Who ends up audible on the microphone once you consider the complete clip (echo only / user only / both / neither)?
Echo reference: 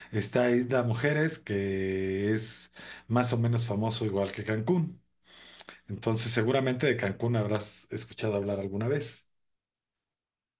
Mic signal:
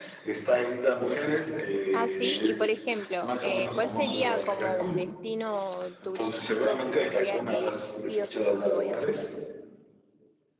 both